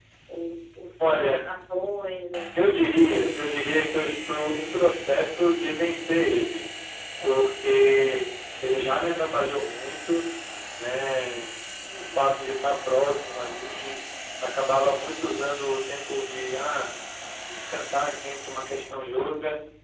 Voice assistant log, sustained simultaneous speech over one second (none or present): none